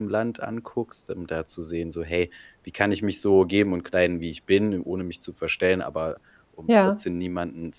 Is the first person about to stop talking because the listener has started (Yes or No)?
No